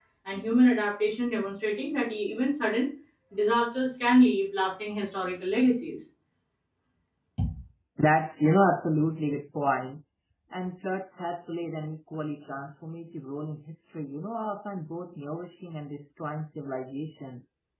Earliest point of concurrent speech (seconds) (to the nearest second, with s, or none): none